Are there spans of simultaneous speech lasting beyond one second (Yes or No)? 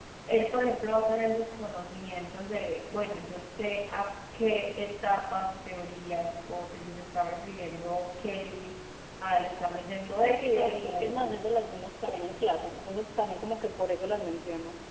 Yes